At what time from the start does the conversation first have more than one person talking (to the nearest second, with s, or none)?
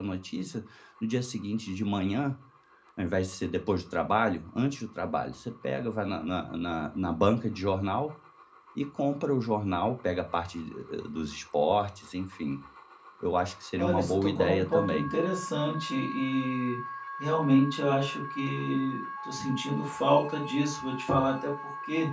14 s